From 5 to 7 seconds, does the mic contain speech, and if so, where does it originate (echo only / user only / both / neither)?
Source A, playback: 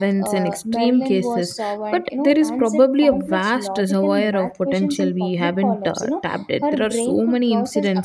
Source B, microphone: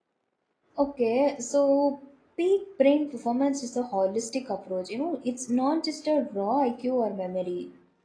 user only